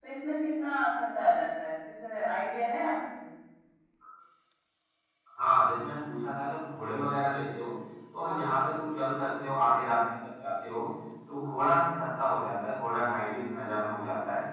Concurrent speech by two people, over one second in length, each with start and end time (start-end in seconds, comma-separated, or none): none